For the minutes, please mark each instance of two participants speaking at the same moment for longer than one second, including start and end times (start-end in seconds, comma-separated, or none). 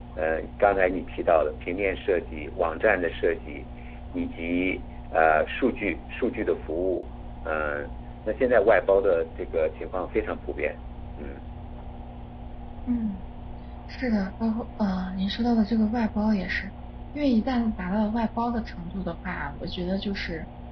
none